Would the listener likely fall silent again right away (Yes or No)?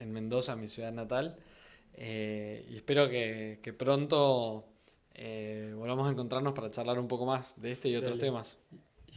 No